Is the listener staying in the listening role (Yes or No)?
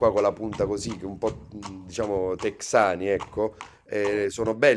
Yes